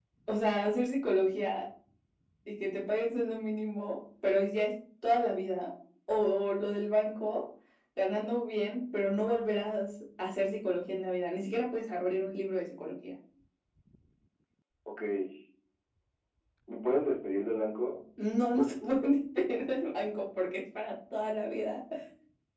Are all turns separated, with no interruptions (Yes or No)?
Yes